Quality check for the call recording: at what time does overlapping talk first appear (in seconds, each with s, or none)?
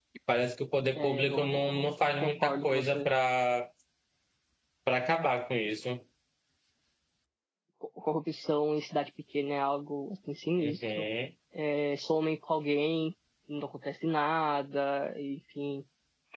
1.0 s